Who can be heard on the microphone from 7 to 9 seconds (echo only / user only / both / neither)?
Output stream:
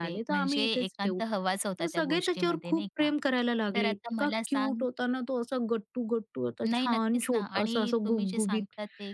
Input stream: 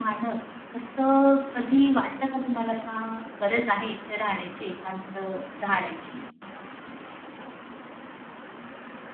neither